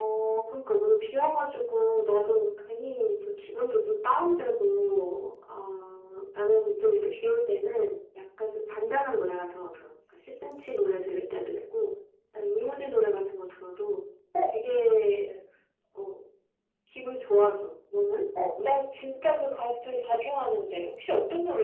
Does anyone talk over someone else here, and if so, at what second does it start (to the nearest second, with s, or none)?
none